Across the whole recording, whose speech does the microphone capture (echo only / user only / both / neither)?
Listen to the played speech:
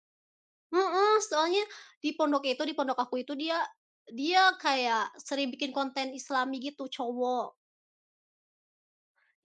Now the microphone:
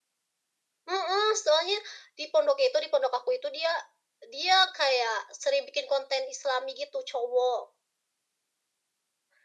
echo only